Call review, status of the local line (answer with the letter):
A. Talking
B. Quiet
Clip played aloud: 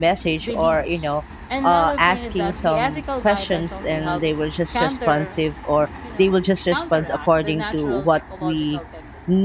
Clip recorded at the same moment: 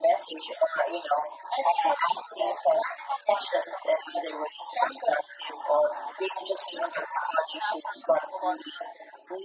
B